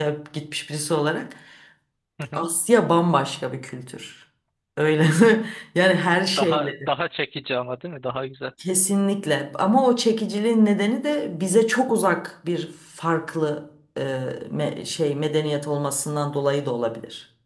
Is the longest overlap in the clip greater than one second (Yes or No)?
No